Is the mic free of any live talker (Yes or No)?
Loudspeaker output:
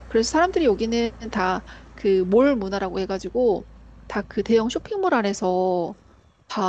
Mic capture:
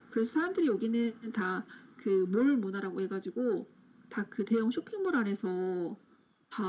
Yes